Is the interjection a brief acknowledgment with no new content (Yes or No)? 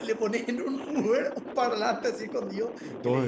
No